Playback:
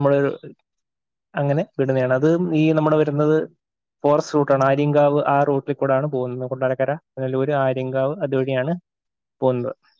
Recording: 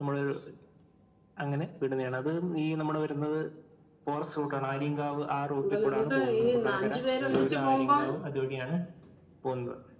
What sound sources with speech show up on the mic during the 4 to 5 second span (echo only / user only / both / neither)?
echo only